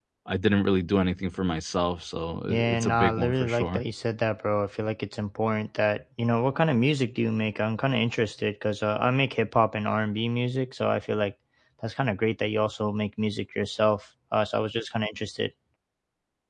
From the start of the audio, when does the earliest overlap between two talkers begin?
2.5 s

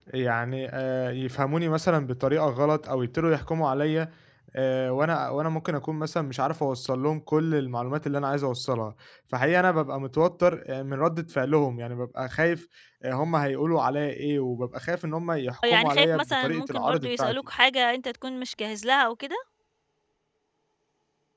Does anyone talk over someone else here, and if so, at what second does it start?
15.6 s

